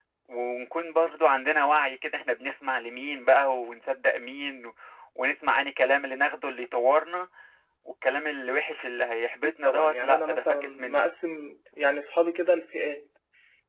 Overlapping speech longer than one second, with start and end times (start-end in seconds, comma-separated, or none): 9.4-11.0